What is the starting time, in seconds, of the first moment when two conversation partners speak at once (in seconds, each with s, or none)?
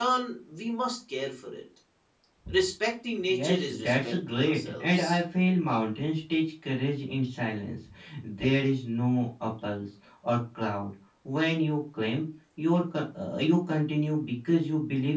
3.3 s